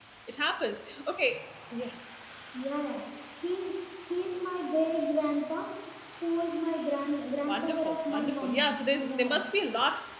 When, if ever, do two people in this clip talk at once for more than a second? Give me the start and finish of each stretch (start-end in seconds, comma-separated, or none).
7.5-9.4